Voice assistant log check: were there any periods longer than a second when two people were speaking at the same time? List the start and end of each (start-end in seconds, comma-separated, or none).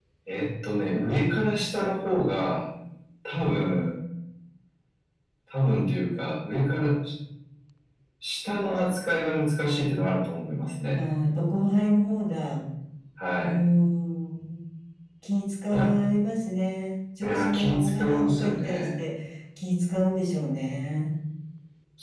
17.2-18.8